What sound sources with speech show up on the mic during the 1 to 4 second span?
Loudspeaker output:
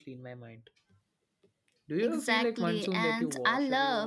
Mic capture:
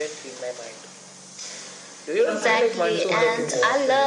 both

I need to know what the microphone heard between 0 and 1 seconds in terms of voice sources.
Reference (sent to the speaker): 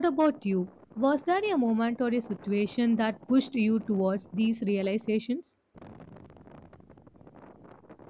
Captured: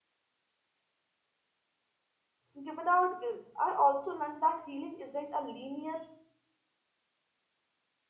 neither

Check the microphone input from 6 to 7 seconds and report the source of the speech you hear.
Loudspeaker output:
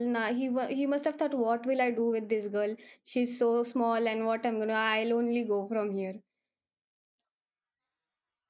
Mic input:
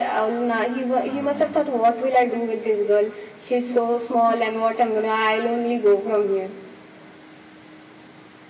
echo only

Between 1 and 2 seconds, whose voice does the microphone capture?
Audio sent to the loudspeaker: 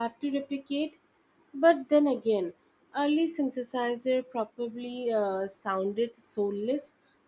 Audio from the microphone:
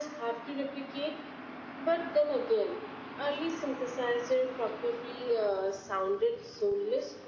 echo only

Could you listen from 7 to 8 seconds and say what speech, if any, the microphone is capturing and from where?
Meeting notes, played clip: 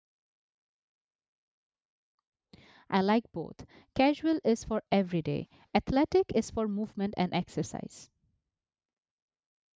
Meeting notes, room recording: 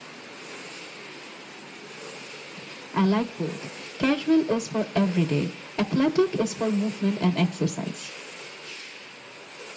echo only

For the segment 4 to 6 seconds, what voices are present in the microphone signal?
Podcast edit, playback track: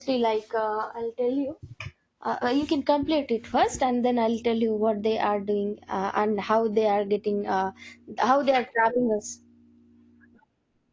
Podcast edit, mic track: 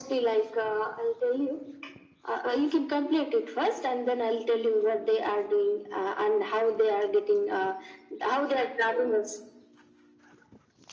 echo only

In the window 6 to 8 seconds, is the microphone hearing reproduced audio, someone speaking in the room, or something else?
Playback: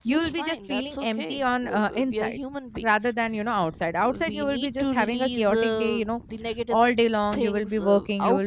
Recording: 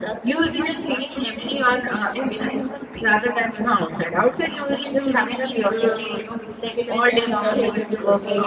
both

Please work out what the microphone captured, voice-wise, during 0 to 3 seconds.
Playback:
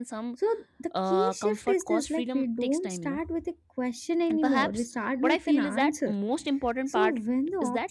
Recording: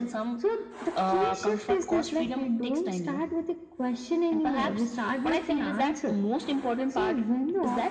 echo only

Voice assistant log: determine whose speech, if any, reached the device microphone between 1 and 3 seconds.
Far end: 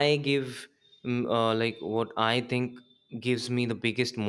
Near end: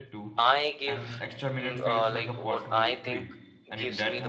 both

